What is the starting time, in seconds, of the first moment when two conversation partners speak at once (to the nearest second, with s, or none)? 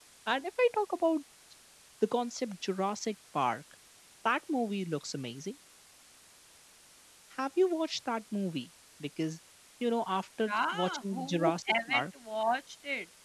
10 s